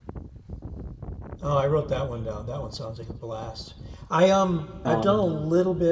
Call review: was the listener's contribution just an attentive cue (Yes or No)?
Yes